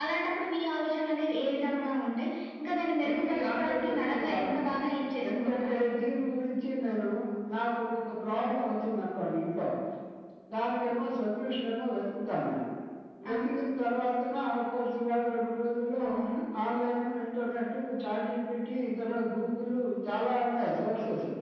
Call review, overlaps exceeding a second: present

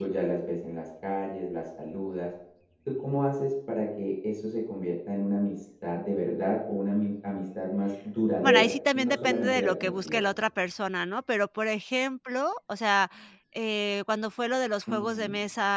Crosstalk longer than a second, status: present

